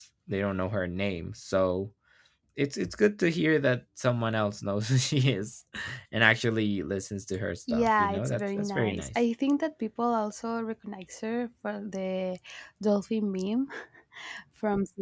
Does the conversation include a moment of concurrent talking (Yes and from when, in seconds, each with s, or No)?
Yes, from 7.7 s